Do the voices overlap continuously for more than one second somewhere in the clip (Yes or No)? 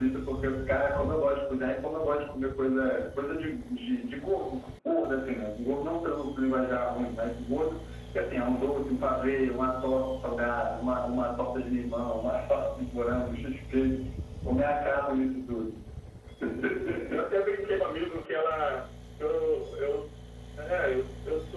No